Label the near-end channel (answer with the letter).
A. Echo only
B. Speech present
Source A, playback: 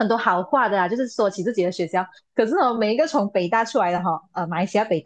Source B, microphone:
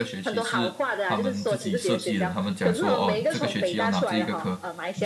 B